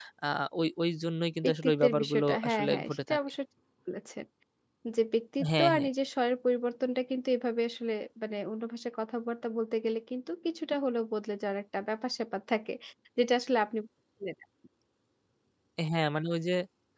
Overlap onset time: 1.4 s

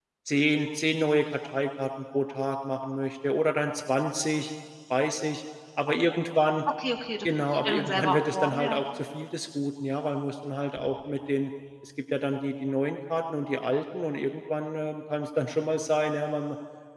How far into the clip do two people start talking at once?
7.5 s

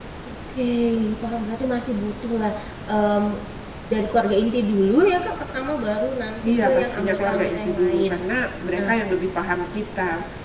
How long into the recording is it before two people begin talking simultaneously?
6.4 s

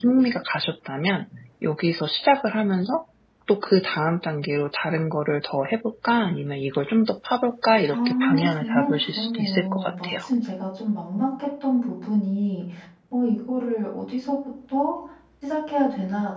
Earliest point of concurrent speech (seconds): 7.9 s

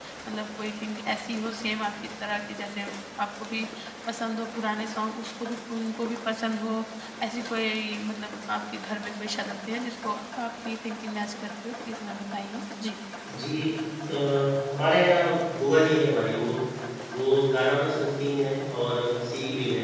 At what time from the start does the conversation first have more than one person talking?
none

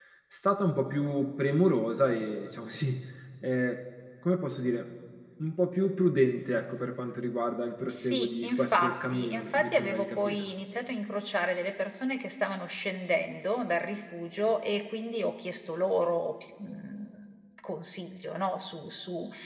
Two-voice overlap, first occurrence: 7.9 s

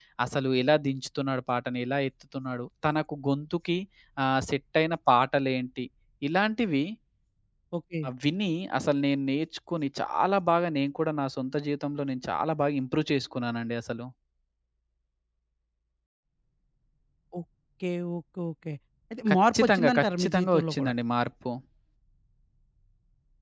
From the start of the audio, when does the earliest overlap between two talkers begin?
19.3 s

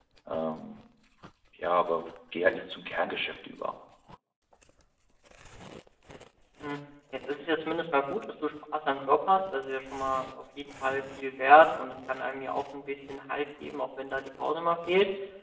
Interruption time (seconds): none

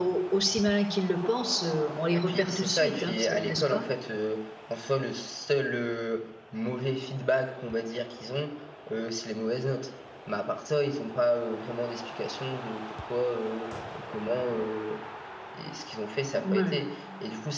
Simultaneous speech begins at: 2.3 s

